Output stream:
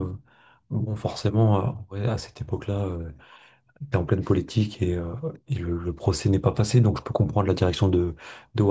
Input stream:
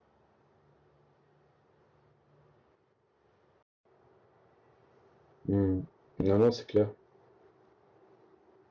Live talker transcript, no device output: Hmm. Non, non, c'est clair.

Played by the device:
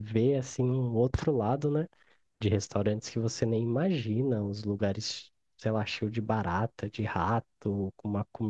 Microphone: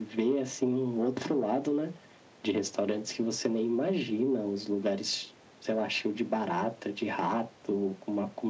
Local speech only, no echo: none

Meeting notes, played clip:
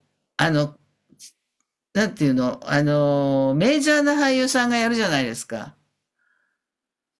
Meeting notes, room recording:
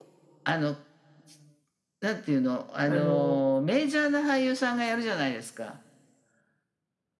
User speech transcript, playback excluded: あの、

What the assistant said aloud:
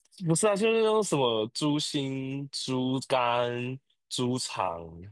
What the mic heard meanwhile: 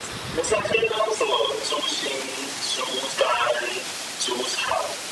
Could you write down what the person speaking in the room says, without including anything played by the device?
none

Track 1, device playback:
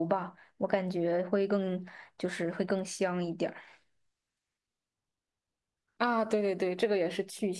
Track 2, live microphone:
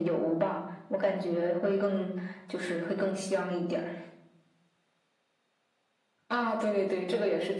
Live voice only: none

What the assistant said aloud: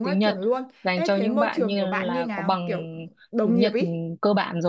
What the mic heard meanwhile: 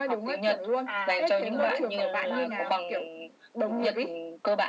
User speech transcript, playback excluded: à kiểu lúc cậu phỏng vấn đúng không

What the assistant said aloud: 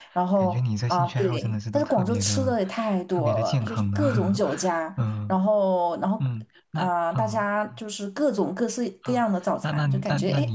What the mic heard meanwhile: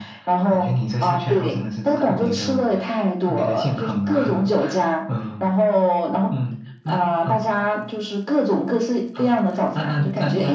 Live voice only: none

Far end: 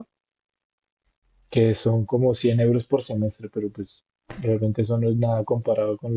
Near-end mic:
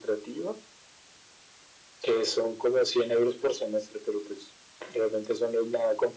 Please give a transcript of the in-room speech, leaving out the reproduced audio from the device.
none

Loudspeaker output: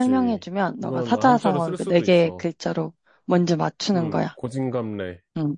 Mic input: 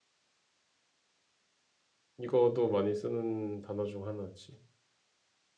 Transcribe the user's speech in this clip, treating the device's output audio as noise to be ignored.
이거도 많이 쓰는 단어 중 하나지.

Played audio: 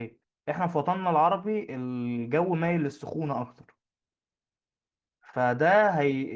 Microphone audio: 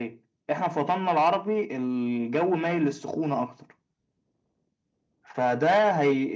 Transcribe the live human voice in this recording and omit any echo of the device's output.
none

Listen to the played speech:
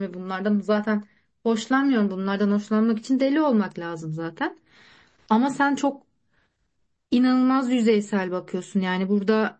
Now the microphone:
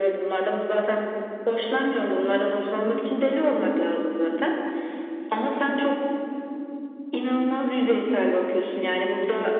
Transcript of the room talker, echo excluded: none

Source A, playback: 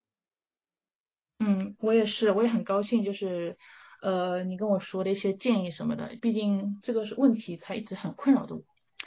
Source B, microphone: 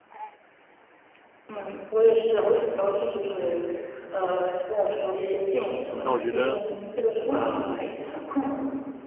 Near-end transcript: 那我觉得，呃，

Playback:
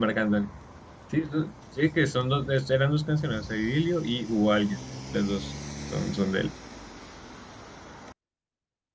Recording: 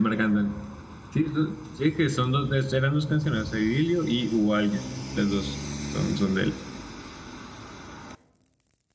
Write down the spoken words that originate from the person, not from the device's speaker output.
none

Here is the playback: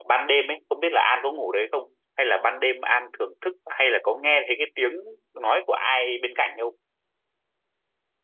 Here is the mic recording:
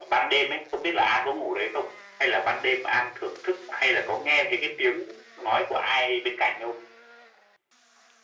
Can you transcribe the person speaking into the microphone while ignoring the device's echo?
none

